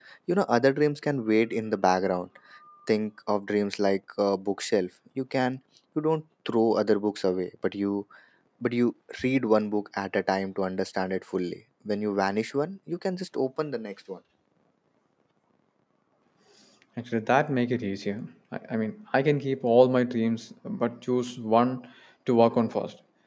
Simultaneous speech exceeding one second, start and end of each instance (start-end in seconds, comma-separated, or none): none